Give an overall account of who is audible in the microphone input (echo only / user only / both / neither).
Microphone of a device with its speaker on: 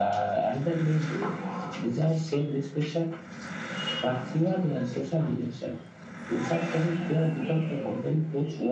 both